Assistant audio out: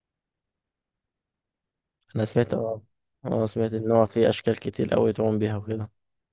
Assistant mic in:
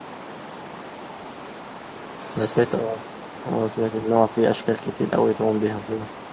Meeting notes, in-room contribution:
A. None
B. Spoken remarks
A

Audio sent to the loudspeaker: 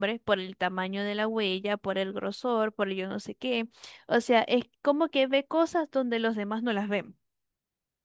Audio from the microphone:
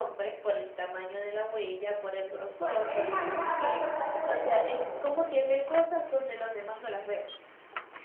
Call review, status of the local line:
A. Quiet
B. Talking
B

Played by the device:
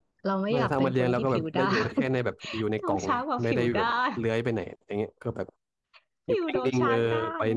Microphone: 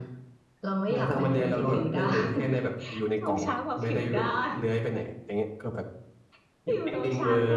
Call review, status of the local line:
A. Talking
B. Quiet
B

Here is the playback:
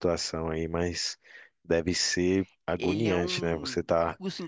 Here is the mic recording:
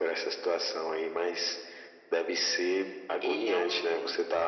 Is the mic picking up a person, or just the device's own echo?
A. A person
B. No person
B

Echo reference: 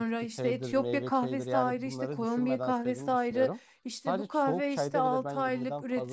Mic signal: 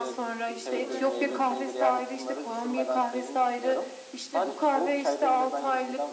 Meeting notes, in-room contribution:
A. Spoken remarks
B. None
A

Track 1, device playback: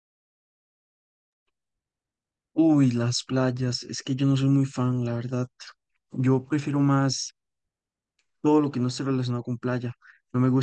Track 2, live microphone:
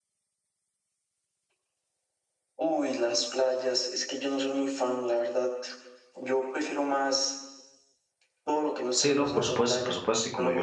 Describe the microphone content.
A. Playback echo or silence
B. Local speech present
B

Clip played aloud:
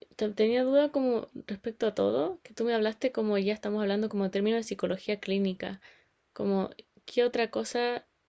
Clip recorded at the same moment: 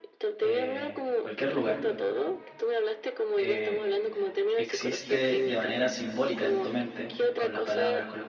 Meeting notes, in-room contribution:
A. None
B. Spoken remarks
B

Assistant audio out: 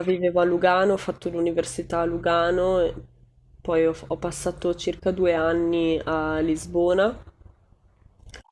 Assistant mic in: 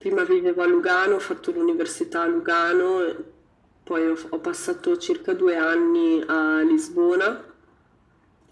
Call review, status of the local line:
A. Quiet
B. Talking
A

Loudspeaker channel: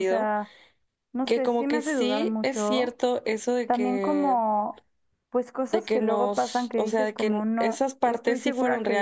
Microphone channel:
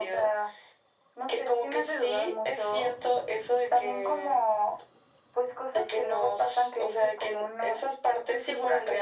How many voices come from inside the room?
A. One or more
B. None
B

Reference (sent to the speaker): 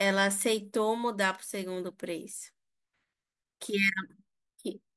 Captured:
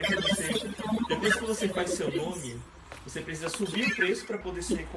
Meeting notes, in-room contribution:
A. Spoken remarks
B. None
A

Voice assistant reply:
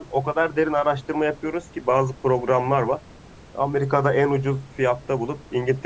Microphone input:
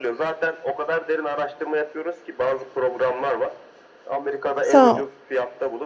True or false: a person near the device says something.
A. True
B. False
A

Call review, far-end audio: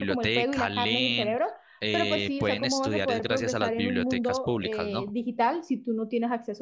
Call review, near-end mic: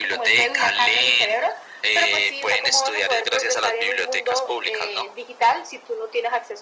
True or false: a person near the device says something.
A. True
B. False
B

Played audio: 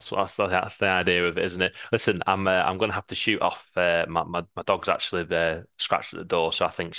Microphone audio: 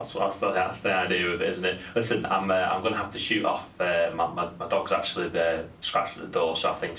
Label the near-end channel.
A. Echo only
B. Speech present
A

